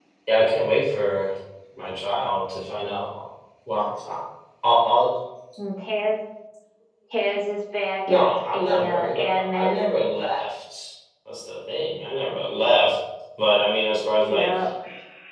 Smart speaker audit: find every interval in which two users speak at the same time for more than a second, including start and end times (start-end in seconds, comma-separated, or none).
8.1-9.8